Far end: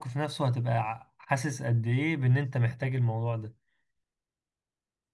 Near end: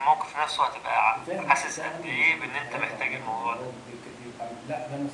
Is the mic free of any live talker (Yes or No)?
No